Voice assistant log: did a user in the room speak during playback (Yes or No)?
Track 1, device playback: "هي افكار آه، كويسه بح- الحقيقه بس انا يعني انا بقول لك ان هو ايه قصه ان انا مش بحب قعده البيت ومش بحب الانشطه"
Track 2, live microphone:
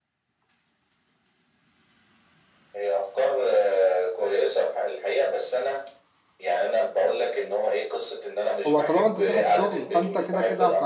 Yes